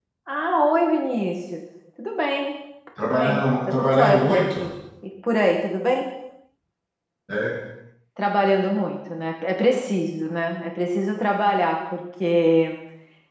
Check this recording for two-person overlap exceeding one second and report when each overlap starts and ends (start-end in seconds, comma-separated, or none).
3.0-4.6